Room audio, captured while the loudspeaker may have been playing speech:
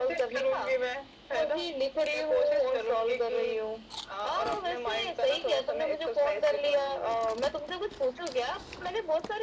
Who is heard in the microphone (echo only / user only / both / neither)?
echo only